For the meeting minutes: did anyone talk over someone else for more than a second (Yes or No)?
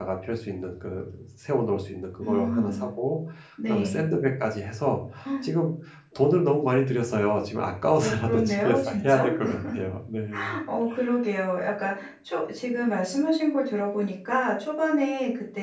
Yes